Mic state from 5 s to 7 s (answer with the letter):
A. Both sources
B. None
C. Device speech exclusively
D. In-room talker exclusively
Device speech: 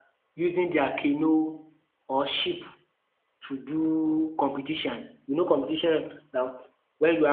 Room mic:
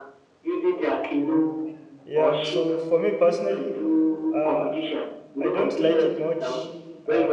A